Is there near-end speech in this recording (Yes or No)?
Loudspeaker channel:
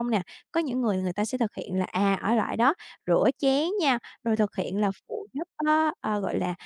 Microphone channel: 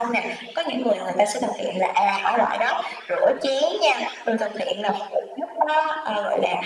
No